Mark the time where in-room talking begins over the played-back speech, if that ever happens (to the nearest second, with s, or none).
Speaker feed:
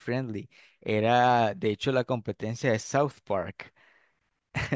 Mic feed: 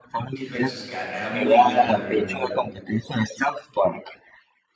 0 s